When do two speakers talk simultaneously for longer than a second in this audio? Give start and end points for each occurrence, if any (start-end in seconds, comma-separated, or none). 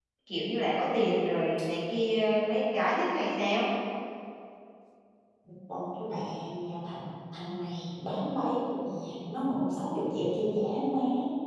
none